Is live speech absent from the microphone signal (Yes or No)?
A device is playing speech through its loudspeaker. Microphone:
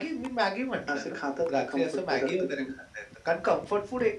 Yes